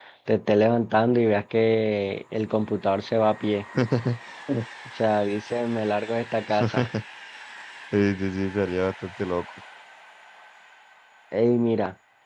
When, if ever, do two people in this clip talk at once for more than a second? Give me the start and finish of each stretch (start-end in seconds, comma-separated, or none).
none